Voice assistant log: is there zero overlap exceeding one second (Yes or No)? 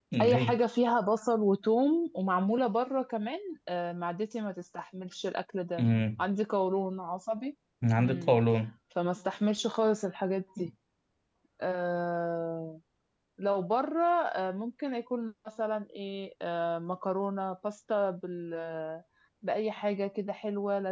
Yes